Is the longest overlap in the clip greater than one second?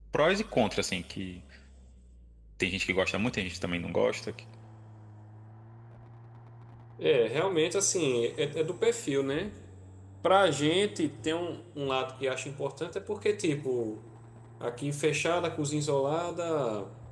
No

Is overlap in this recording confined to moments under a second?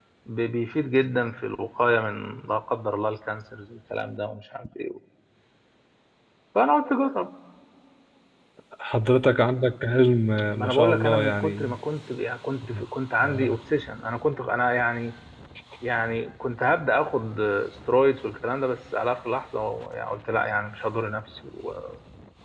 No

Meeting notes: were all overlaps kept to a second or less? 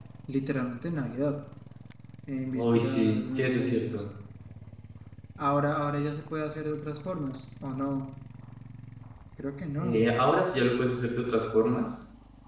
No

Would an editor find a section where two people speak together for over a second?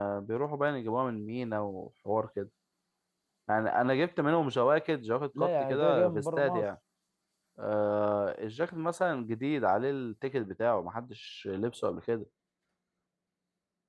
Yes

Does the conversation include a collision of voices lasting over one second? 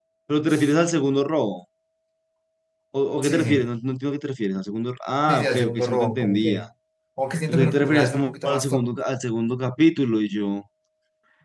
Yes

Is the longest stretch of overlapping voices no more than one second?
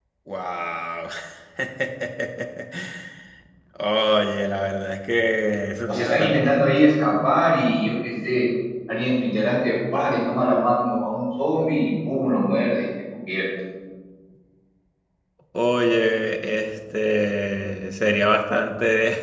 Yes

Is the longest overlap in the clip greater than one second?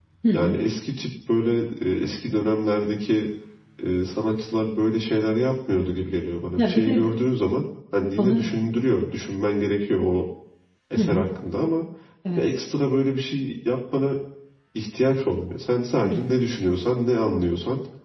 No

